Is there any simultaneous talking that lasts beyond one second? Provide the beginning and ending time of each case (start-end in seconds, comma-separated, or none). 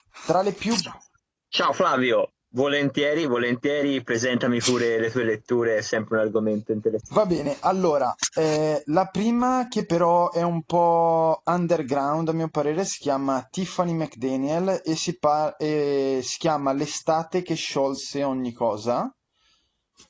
none